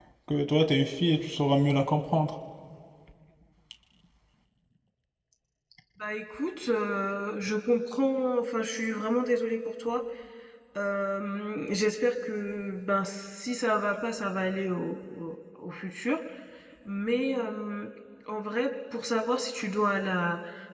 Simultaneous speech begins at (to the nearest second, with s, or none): none